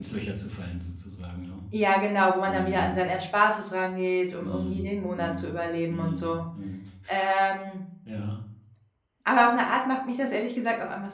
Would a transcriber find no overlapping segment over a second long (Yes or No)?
No